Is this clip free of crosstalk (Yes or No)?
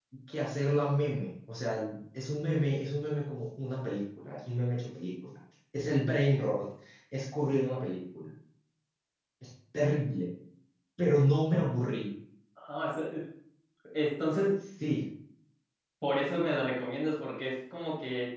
Yes